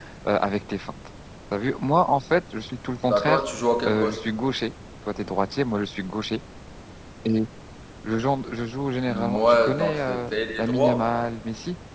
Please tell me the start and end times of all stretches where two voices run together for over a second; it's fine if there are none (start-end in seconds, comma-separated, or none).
9.1-11.0